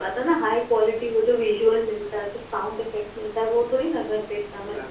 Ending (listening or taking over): taking over